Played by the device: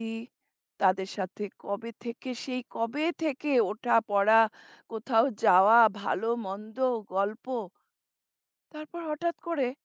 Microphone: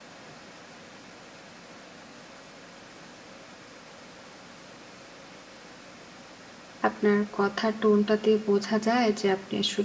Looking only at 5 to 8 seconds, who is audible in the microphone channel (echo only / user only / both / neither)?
user only